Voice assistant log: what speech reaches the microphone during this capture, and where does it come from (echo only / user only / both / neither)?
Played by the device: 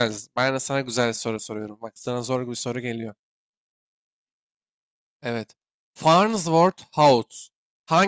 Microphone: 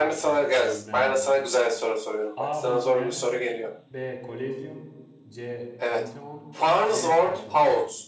both